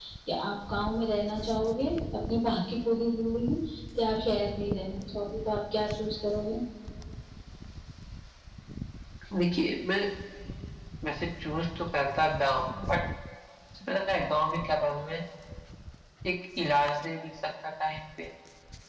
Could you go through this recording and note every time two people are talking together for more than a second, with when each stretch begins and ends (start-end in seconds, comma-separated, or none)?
none